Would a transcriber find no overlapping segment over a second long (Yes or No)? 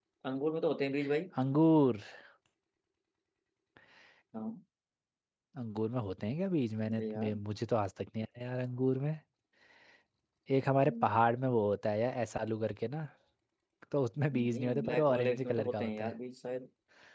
No